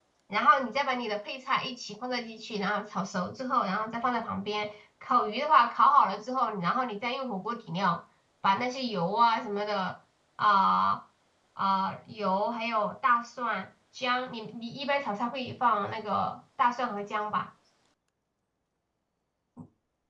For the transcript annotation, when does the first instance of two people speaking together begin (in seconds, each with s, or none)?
none